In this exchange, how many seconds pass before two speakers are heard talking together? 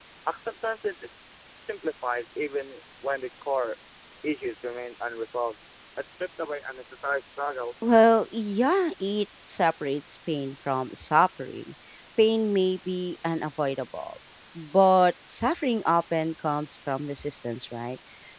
none

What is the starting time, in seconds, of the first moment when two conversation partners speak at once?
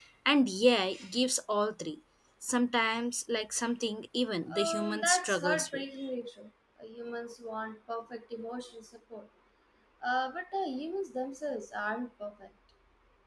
4.5 s

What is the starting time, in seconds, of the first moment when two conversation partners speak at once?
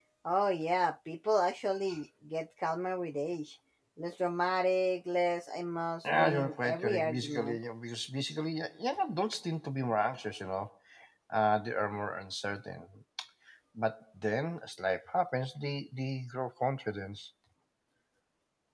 6.0 s

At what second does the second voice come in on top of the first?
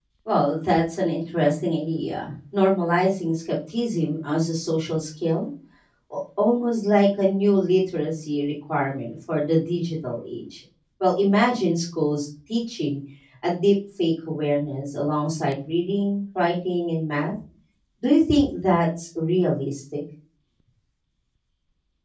none

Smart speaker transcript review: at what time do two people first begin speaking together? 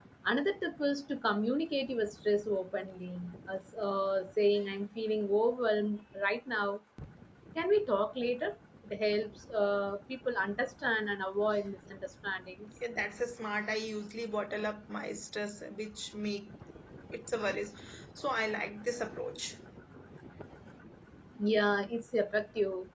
none

